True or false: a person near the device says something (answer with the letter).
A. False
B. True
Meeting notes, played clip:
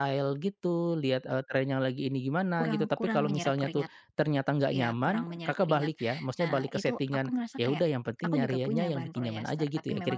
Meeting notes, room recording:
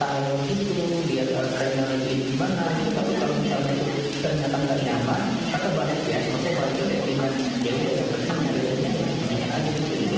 A